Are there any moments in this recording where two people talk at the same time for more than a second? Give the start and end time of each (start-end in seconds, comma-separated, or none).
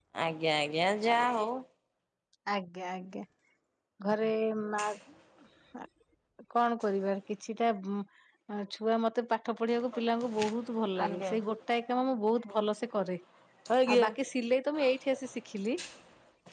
none